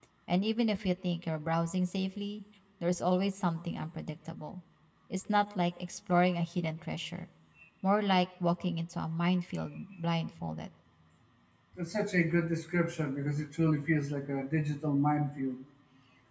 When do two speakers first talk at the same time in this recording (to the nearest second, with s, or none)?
none